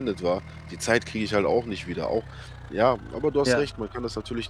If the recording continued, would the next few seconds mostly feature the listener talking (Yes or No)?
No